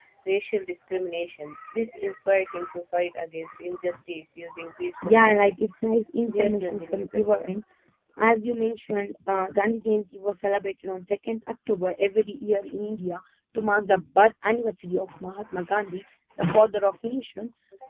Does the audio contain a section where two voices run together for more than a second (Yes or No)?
Yes